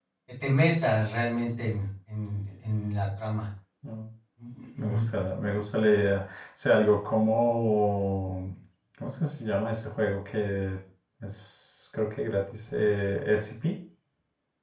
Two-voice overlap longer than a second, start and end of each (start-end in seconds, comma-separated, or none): none